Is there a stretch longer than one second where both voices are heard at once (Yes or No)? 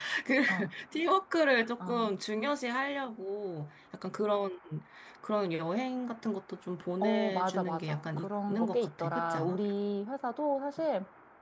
Yes